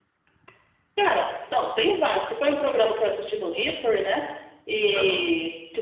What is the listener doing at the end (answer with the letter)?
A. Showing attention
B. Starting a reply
A